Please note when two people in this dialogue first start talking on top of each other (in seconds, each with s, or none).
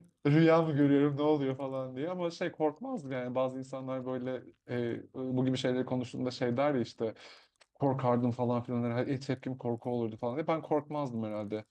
none